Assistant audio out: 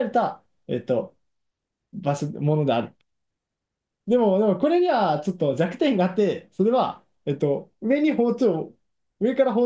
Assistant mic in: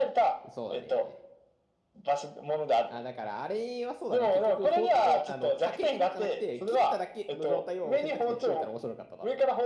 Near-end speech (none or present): present